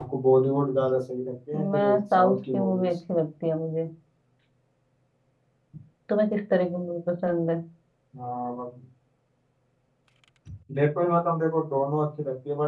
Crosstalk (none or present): present